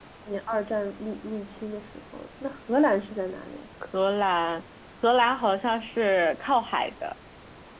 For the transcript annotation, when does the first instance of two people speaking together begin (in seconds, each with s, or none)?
none